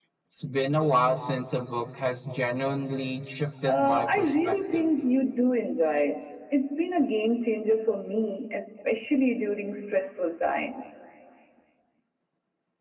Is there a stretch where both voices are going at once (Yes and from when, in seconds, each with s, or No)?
Yes, from 3.7 s